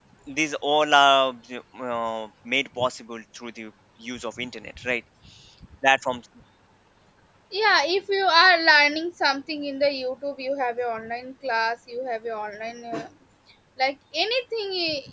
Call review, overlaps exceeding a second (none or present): none